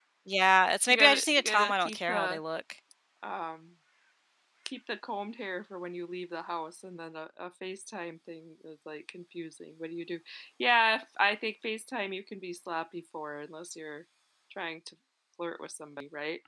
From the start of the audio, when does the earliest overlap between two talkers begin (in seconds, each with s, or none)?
0.9 s